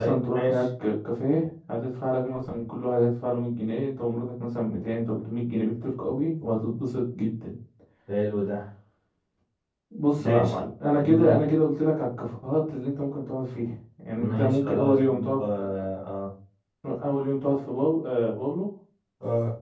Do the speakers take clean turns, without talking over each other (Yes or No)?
No